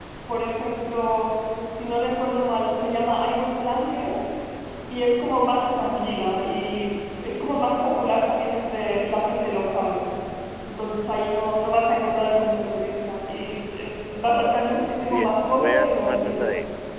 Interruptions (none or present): present